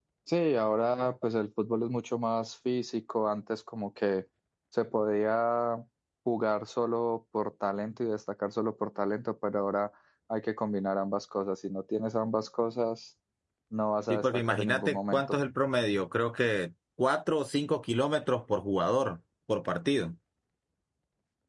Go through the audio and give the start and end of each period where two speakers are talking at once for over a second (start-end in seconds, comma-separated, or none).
14.1-15.4